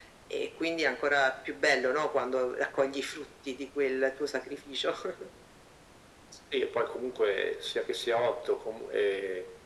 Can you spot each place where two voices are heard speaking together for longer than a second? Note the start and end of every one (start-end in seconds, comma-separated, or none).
none